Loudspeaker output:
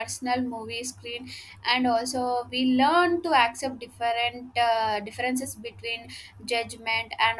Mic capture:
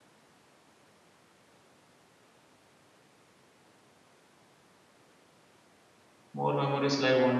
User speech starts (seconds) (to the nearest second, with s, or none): 6 s